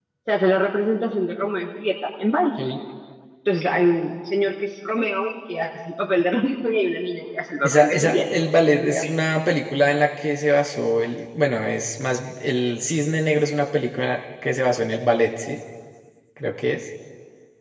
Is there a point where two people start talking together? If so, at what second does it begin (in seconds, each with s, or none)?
7.6 s